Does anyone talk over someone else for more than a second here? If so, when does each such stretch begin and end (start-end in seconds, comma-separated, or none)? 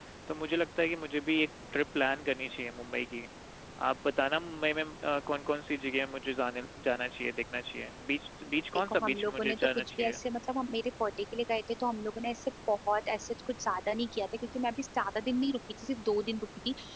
8.9-10.2